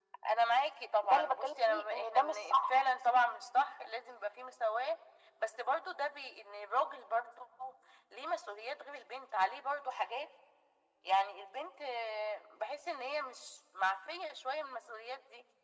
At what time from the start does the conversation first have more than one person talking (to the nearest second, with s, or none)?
1 s